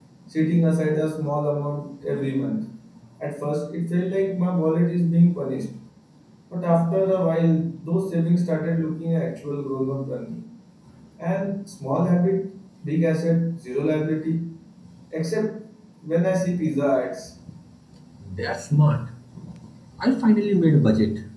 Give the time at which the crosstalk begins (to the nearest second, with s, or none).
none